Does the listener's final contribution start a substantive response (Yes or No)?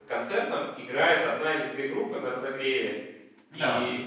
No